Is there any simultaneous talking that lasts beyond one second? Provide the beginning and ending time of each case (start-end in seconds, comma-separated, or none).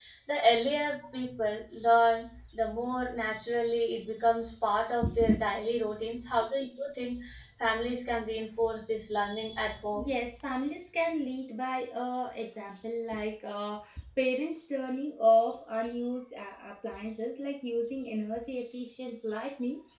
none